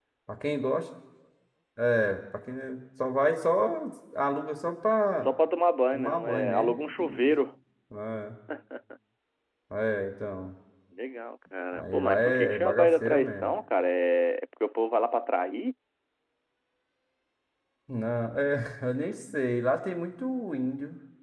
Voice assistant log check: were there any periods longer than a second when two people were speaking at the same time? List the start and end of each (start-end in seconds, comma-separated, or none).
5.9-7.3, 11.7-13.6